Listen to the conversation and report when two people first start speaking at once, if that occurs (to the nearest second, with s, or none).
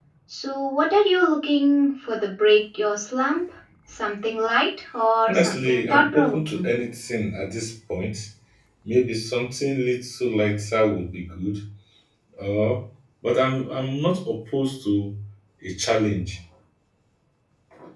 5 s